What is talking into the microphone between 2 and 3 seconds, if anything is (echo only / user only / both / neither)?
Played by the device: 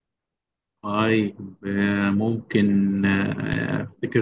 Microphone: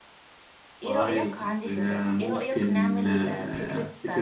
both